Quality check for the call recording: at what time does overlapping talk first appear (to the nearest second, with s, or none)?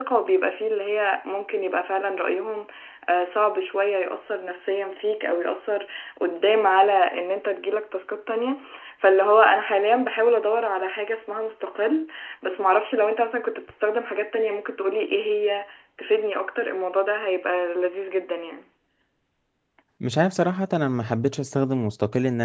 none